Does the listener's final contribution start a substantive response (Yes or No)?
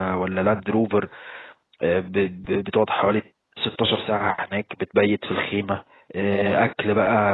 No